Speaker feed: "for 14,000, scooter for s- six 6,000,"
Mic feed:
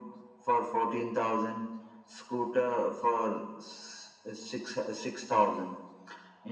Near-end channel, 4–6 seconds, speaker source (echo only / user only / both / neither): echo only